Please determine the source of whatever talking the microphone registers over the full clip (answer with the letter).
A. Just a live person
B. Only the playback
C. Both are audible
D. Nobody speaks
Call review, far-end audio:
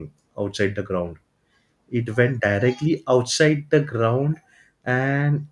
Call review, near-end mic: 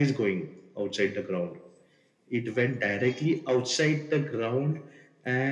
B